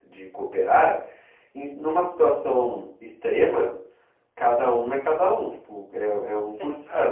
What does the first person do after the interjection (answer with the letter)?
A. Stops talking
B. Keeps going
A